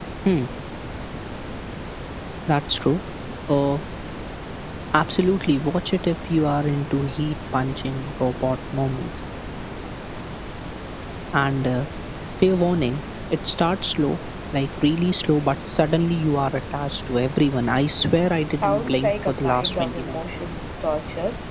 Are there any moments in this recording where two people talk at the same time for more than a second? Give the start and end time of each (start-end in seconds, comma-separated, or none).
18.6-20.2